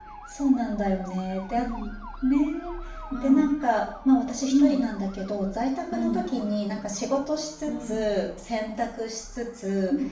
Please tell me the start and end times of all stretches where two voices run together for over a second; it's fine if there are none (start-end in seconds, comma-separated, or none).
none